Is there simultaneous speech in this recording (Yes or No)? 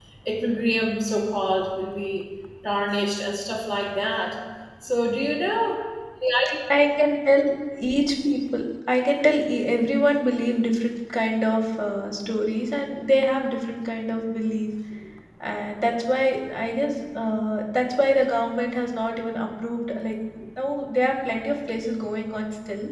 No